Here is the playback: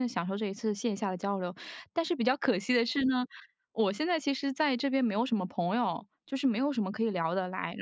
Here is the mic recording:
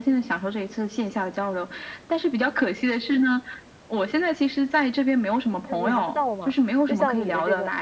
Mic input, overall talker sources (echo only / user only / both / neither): both